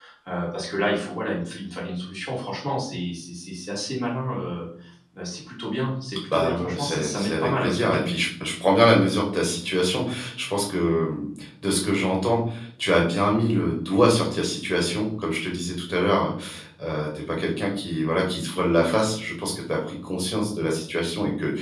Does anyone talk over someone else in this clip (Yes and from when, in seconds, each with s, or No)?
Yes, from 6.3 s